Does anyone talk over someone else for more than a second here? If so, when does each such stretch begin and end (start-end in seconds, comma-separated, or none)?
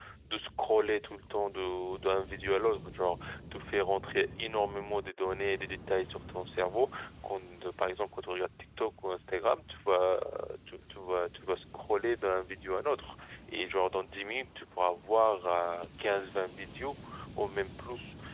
none